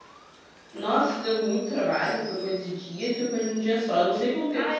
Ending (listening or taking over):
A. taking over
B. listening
A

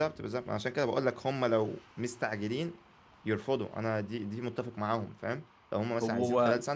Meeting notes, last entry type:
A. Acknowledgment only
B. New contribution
A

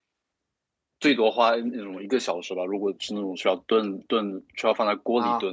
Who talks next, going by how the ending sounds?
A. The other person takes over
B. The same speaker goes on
B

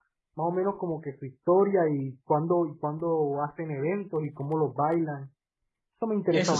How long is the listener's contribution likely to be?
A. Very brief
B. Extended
B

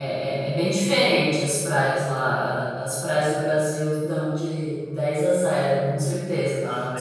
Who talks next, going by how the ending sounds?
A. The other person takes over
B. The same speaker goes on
B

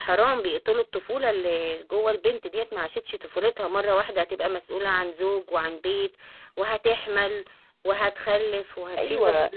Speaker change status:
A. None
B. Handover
B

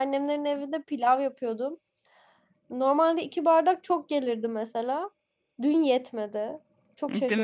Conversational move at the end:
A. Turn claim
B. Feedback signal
A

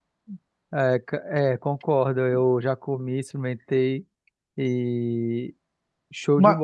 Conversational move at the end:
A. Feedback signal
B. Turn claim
B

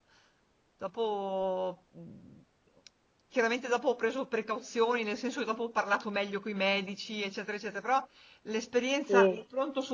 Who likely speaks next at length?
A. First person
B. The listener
A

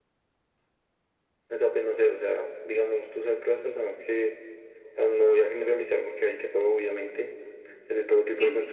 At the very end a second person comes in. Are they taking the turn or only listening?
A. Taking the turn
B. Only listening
B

